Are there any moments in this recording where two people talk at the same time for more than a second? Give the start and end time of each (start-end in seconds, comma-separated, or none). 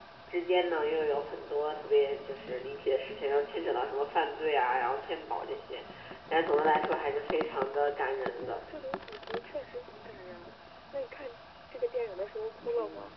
none